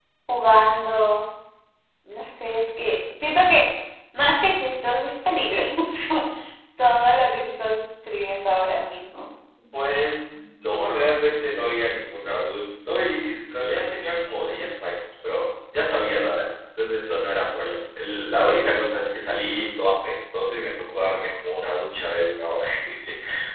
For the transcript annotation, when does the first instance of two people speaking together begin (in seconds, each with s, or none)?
none